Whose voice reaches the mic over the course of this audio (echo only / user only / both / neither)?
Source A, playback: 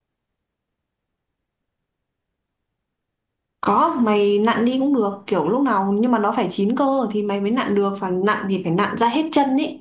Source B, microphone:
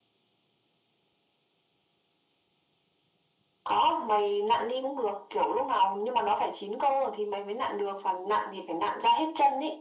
echo only